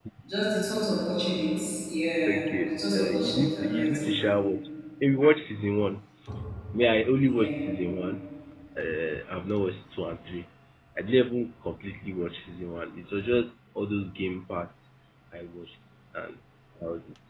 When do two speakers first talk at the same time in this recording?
2.3 s

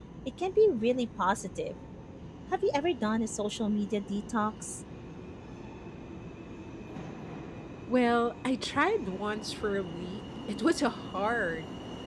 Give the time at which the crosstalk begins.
none

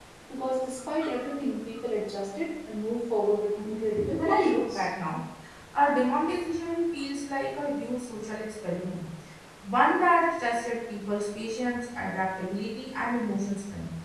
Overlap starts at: 3.6 s

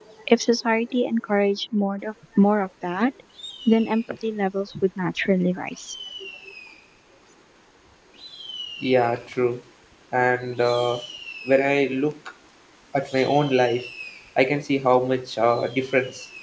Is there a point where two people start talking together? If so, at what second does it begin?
none

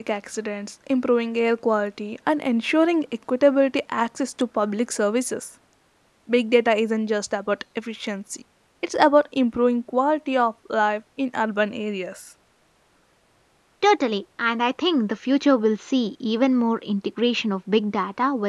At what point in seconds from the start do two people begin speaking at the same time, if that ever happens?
none

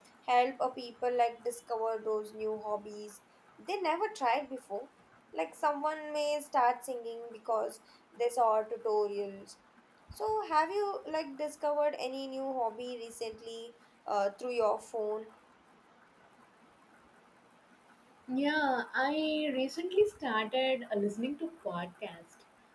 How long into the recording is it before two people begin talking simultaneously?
none

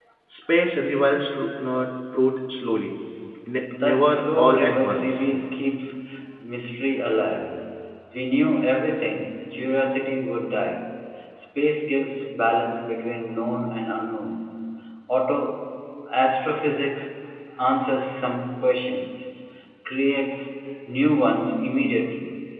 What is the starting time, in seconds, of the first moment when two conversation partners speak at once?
3.8 s

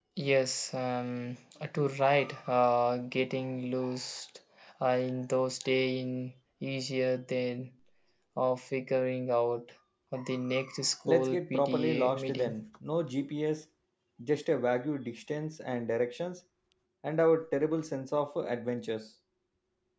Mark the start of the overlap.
11.0 s

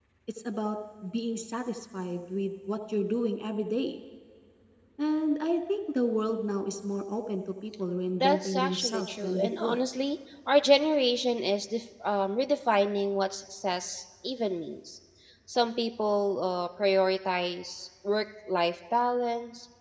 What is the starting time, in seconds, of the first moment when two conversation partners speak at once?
8.2 s

